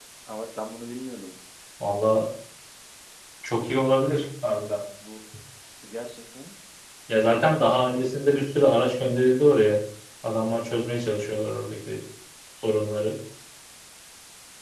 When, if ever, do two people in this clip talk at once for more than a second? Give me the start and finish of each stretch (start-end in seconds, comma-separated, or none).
none